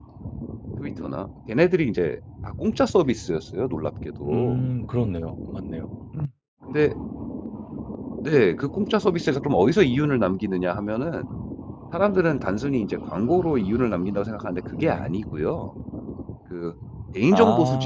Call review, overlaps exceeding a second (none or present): none